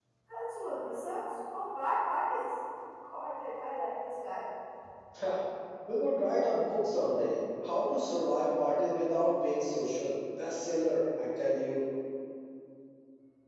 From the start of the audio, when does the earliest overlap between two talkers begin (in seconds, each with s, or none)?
none